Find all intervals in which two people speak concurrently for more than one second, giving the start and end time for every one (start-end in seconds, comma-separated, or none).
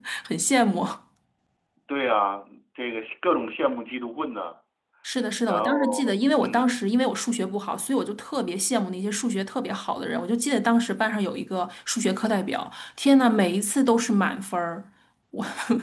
5.5-6.8